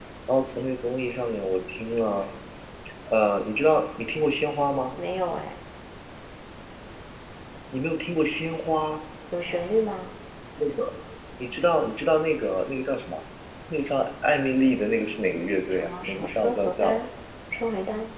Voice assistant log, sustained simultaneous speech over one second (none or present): present